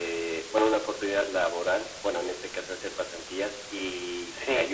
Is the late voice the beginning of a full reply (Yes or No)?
No